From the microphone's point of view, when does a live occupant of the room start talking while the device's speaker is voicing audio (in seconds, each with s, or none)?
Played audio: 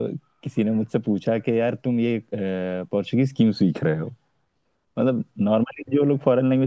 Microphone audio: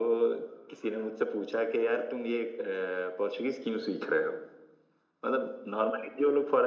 none